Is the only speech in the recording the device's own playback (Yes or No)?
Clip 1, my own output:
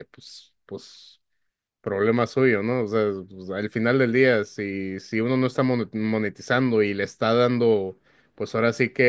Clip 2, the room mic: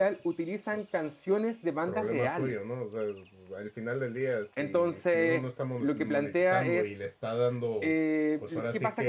No